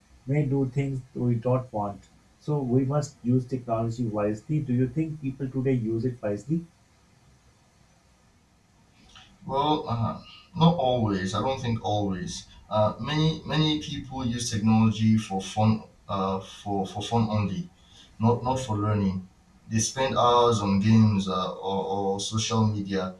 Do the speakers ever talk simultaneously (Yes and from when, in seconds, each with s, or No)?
No